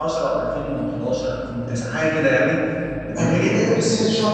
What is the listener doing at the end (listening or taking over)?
taking over